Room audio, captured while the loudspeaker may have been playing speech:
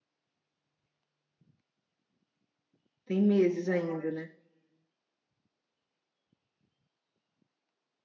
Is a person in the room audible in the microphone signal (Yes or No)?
Yes